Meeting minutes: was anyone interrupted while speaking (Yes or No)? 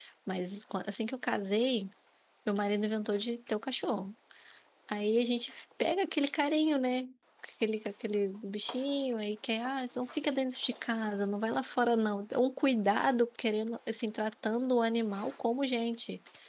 No